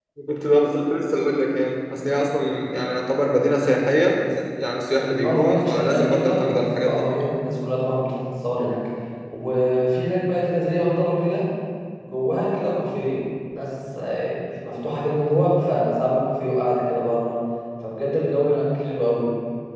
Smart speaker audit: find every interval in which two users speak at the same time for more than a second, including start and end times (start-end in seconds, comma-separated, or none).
5.2-7.0